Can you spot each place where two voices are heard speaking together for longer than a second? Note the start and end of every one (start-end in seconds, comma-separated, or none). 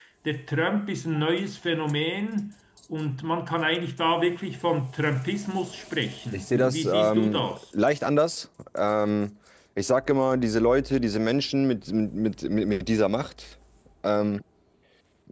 6.3-7.6